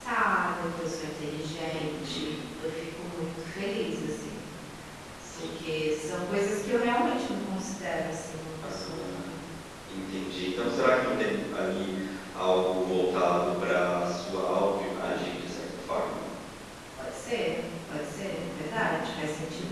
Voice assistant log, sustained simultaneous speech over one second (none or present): present